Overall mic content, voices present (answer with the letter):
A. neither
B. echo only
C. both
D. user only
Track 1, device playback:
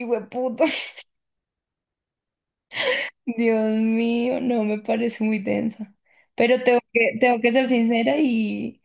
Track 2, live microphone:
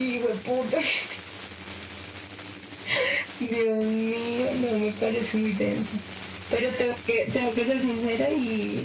B